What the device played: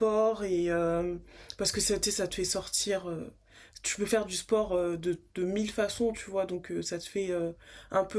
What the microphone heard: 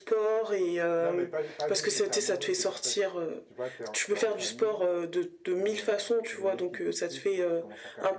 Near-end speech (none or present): present